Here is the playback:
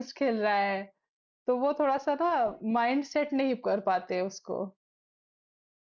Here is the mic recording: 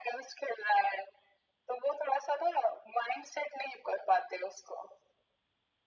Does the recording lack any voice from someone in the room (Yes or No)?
Yes